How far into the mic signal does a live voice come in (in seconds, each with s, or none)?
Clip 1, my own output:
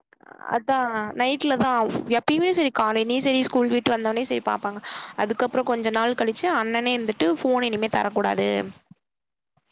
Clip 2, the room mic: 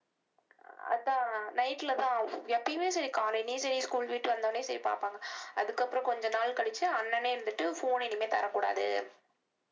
none